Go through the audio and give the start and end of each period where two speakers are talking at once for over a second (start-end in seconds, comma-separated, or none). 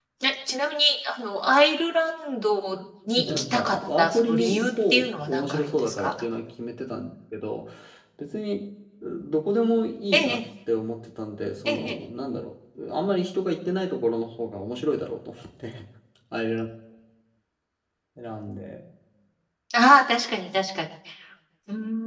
3.1-6.1